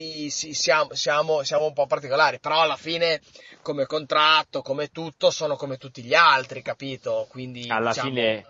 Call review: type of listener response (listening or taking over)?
taking over